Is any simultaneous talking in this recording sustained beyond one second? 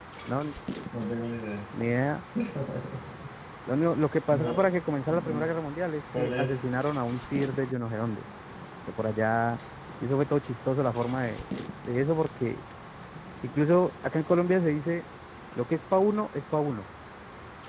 No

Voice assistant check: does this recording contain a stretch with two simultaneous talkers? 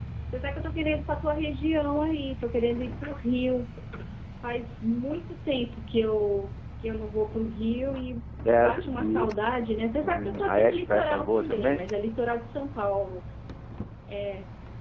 Yes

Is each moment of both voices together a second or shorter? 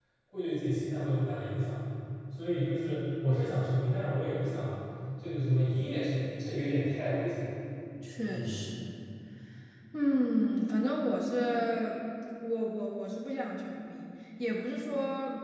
Yes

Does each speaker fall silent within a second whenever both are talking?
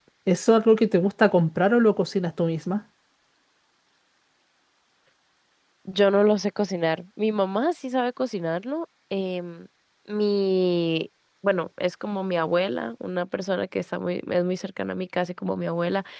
Yes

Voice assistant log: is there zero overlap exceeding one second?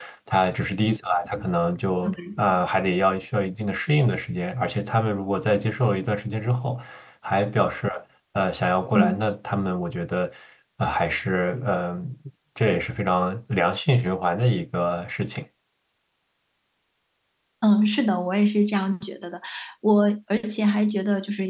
Yes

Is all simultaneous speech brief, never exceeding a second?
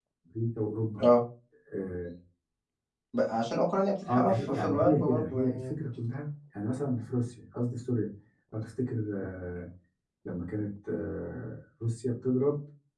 No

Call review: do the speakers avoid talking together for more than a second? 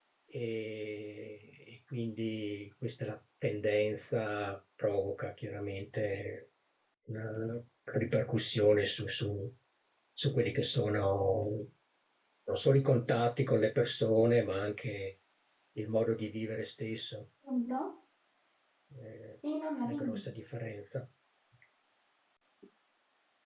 Yes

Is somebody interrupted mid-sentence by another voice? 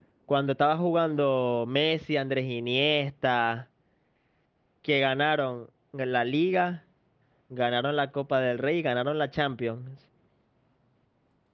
No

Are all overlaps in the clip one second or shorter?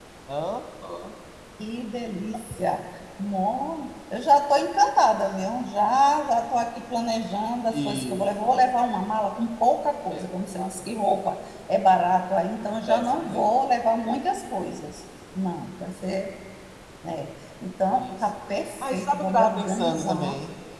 No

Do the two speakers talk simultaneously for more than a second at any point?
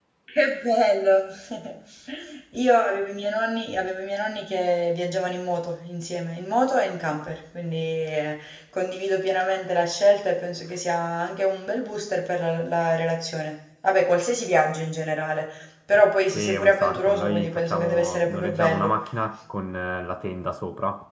Yes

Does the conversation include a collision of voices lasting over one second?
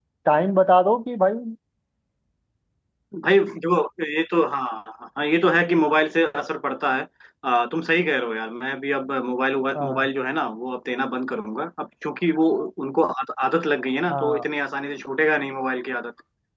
No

